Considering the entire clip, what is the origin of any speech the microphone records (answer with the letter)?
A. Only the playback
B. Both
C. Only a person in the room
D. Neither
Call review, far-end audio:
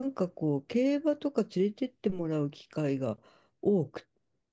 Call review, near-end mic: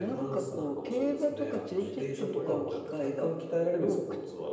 B